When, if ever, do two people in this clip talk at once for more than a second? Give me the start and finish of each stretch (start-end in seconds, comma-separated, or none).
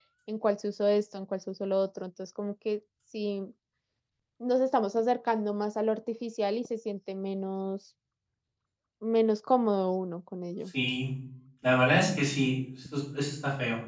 none